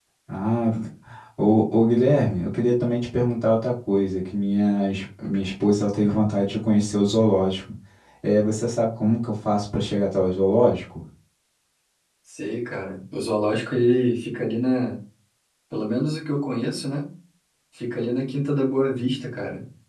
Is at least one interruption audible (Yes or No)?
No